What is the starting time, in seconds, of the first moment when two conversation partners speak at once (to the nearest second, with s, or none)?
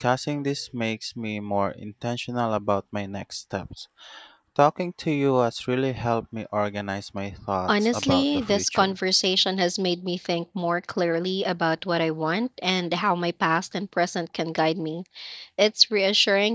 8 s